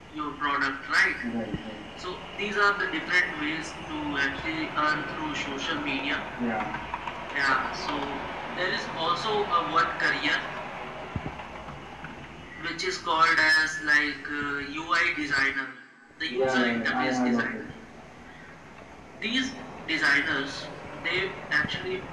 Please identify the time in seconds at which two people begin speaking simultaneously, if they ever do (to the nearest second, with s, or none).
16 s